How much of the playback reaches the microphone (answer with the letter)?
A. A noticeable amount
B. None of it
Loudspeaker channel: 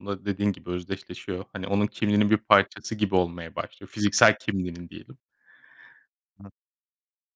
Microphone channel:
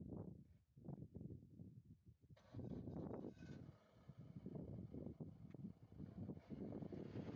B